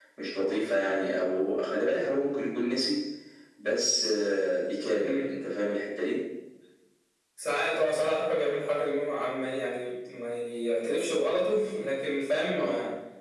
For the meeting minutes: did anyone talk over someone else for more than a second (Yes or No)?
No